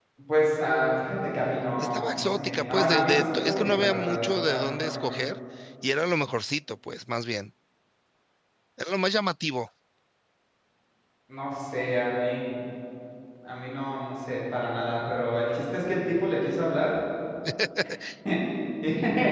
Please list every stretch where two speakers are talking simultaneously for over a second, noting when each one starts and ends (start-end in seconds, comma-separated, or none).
1.8-5.2